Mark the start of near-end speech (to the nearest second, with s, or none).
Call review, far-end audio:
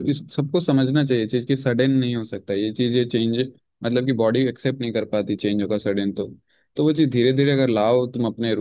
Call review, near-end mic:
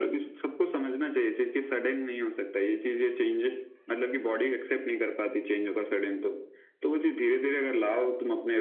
none